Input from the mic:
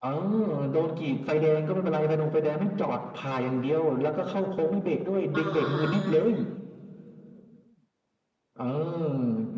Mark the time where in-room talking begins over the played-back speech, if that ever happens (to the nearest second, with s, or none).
5 s